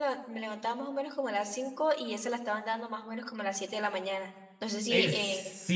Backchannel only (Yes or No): No